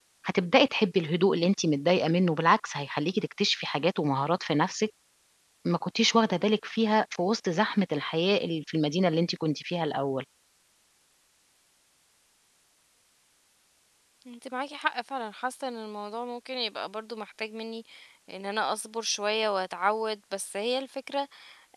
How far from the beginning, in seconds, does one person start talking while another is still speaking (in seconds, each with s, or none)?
none